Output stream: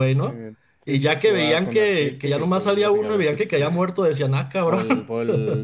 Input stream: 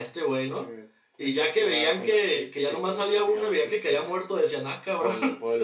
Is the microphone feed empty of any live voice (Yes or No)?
Yes